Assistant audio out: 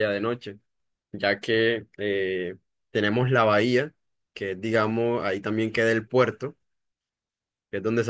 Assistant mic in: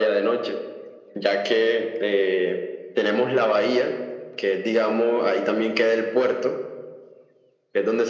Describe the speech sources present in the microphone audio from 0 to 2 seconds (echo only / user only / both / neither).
echo only